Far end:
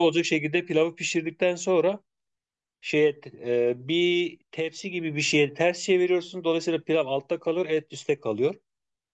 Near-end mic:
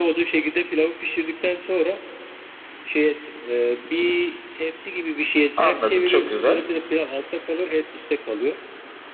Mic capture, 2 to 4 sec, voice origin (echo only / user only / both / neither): echo only